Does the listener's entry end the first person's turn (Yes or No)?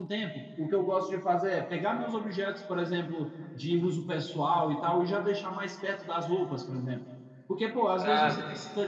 No